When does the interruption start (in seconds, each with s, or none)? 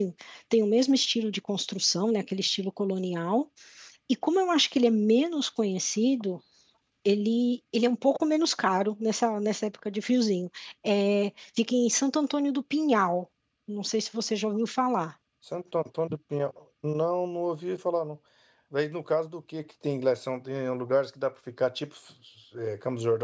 none